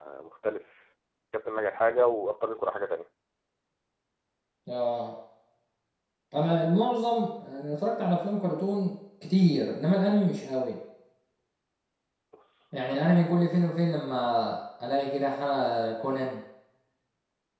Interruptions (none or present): none